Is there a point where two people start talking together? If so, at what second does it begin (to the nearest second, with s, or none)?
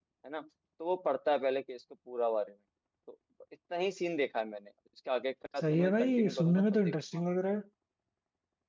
6 s